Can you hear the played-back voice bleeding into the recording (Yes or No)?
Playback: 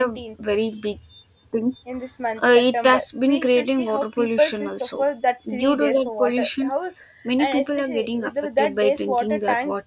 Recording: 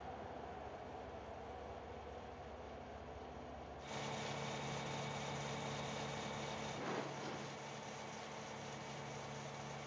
No